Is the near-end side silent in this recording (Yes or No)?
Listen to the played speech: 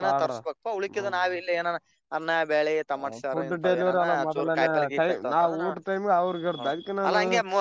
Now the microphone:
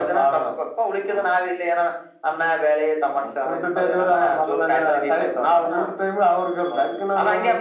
Yes